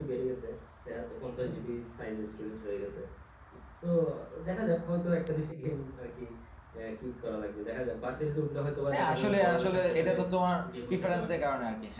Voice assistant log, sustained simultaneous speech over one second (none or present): present